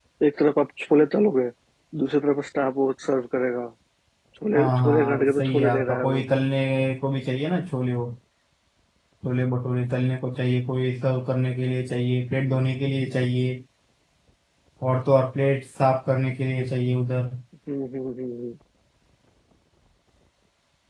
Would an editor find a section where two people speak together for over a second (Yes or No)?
Yes